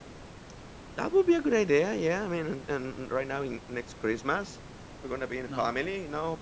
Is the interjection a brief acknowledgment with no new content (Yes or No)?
Yes